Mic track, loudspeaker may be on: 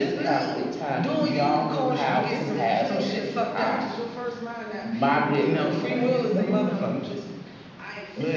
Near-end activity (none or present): present